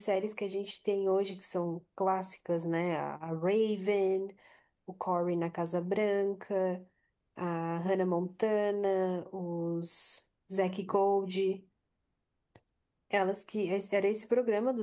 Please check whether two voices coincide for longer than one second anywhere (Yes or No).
No